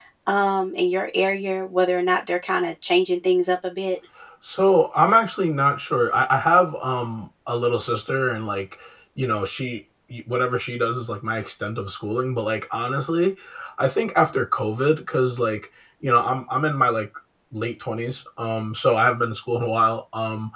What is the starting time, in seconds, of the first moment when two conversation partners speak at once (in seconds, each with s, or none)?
none